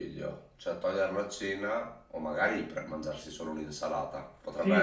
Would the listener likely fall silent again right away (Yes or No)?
No